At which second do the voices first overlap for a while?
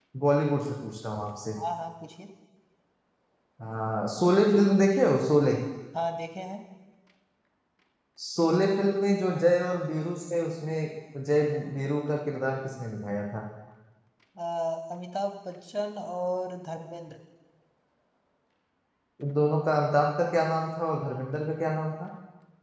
none

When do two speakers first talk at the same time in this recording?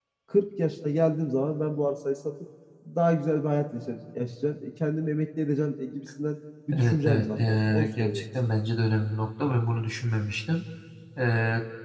6.7 s

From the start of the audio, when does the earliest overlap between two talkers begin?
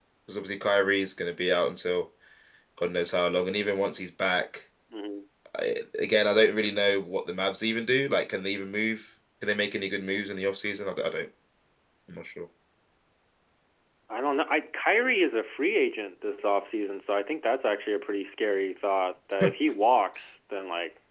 none

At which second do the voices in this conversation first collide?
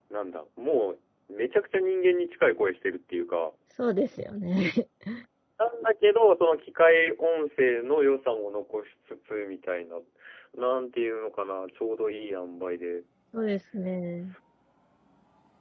none

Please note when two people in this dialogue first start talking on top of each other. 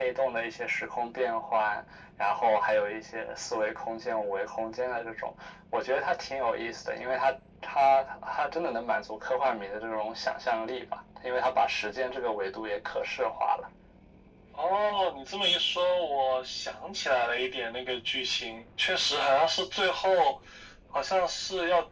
none

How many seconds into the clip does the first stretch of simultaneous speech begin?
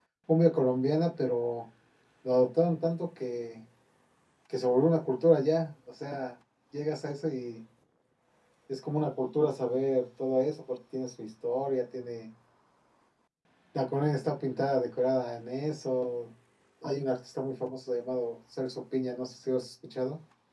none

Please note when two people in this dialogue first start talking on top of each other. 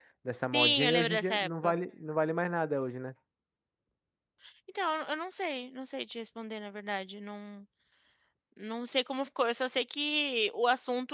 0.5 s

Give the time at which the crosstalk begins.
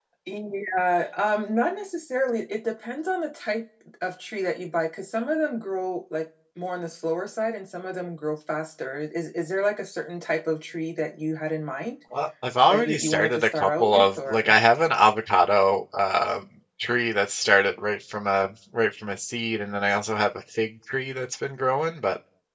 12.7 s

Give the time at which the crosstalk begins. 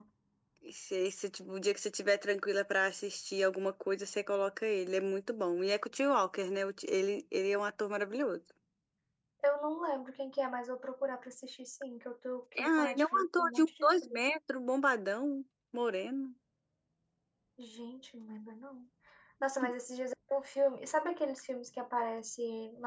12.6 s

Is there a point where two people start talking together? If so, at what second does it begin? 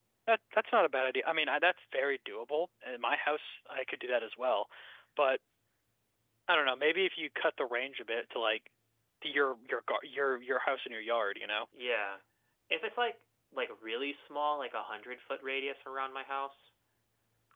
none

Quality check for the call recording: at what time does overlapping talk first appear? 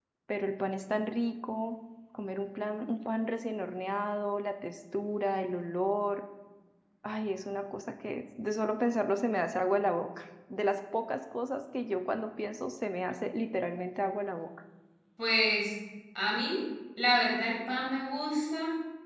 none

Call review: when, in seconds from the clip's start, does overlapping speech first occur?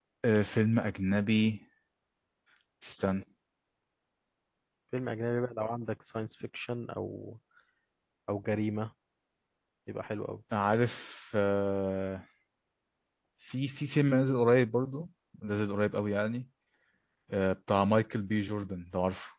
none

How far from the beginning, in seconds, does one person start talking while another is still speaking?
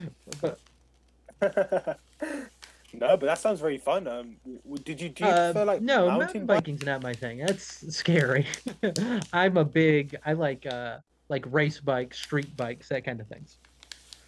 5.2 s

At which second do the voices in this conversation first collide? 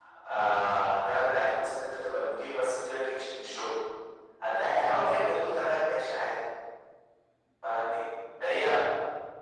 none

